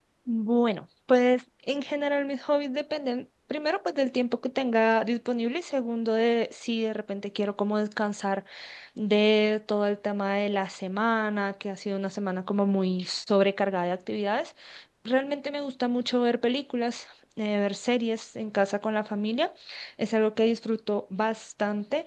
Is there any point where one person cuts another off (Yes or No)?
No